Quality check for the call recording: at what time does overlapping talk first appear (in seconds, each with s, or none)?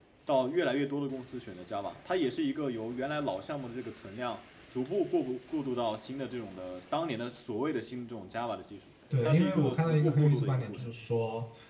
9.1 s